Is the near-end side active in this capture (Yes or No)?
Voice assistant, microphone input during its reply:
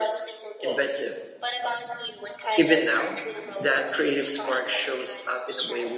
Yes